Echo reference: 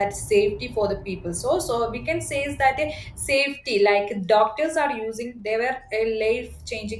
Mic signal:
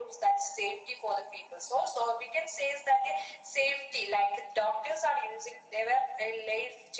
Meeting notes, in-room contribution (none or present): none